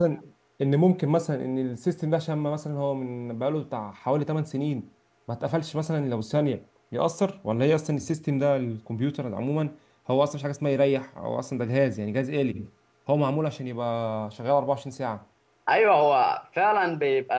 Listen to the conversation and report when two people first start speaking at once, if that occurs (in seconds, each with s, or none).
none